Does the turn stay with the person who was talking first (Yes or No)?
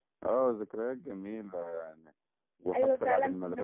No